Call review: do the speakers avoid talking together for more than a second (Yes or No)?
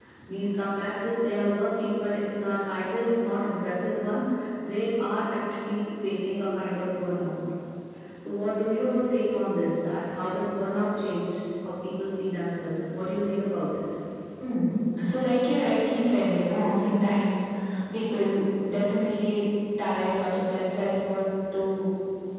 Yes